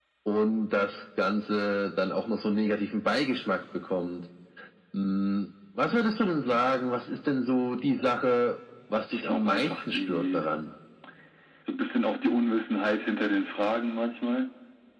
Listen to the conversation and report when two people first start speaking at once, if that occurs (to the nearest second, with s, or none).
9 s